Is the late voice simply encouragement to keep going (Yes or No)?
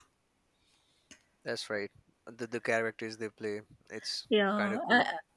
No